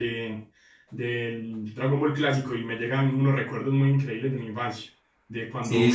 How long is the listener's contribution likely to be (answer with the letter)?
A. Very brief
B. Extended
A